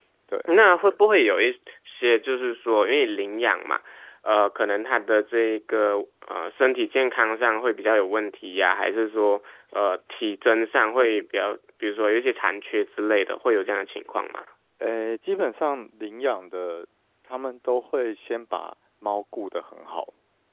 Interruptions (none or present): none